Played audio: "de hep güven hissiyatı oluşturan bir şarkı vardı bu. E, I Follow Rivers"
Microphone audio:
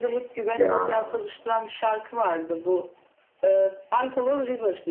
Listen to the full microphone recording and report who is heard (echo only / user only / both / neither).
both